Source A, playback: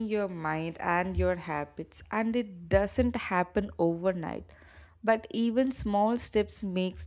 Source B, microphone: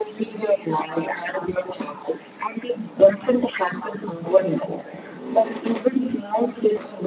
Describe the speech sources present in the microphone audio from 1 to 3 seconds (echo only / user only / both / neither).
echo only